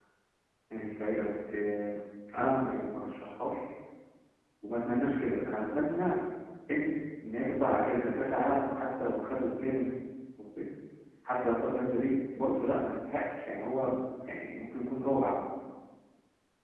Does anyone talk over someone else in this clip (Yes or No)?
No